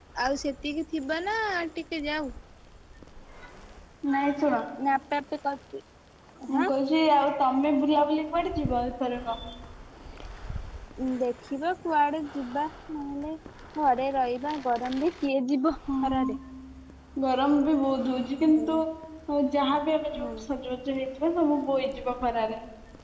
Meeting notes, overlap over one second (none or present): none